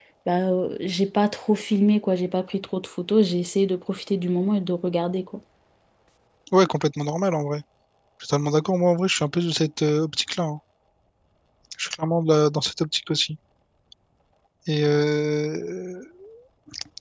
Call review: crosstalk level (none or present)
none